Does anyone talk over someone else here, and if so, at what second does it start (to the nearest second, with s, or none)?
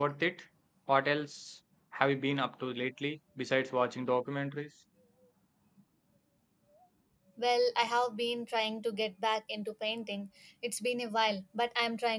none